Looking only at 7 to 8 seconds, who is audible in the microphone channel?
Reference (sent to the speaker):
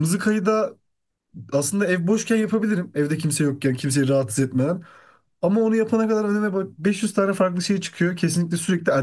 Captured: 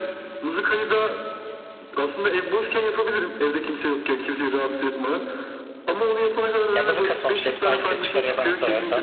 both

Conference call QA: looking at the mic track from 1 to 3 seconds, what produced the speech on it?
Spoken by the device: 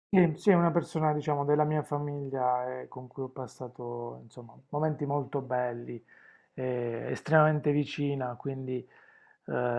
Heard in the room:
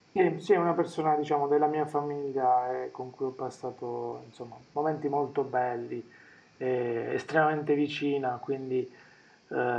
echo only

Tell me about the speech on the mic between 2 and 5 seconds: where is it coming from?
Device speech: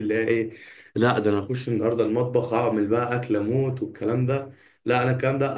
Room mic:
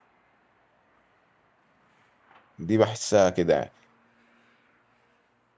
user only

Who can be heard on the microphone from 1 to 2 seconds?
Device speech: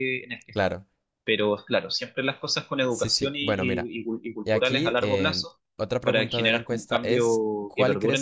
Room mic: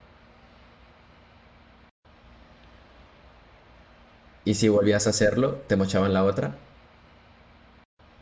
neither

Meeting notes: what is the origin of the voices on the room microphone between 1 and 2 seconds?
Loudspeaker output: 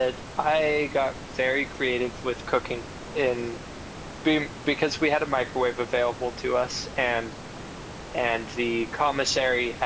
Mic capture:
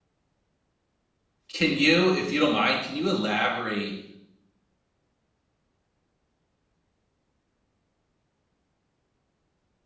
user only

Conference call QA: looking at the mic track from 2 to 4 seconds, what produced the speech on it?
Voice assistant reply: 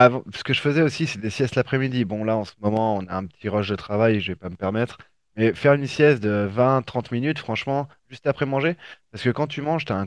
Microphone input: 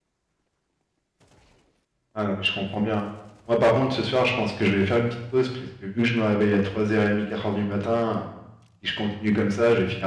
user only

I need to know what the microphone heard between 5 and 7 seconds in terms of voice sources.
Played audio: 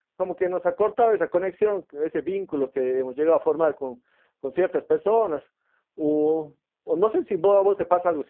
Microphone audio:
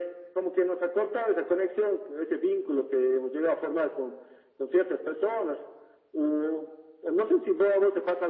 echo only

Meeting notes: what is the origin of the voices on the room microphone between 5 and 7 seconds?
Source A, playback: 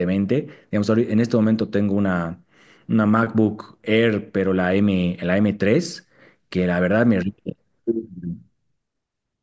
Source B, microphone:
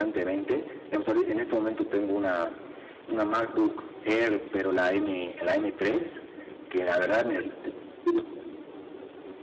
echo only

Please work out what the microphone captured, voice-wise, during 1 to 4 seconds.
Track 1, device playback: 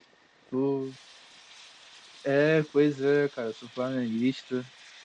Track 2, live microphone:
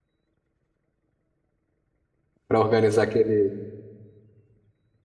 user only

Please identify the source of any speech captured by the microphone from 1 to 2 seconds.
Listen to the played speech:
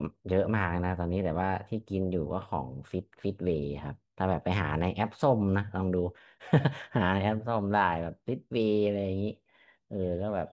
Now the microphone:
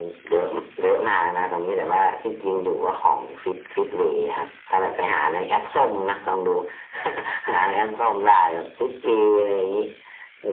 echo only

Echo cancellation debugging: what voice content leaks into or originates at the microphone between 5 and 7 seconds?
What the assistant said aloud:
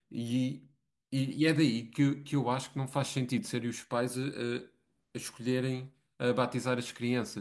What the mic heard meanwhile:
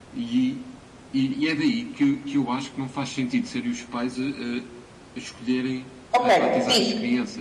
both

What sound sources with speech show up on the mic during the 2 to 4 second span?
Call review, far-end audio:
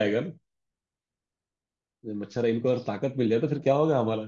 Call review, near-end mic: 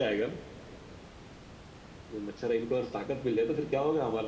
echo only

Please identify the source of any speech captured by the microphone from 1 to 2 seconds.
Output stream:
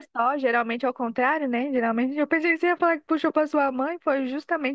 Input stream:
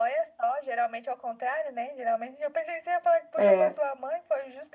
echo only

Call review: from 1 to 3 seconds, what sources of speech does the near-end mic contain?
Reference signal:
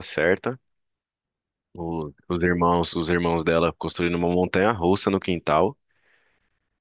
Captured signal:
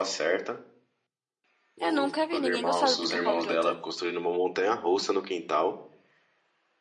both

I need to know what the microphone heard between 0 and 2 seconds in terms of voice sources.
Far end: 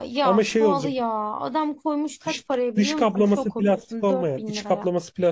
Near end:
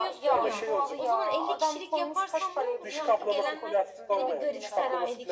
both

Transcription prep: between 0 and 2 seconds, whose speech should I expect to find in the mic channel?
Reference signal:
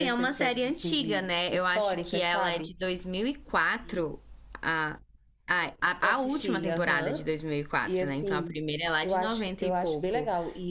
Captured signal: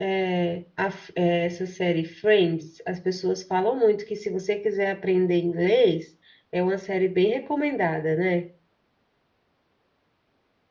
user only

